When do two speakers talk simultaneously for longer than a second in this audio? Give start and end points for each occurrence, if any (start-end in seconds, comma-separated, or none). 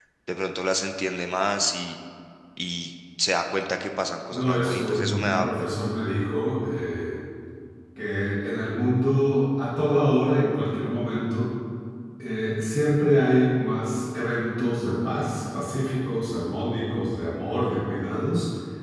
4.3-5.7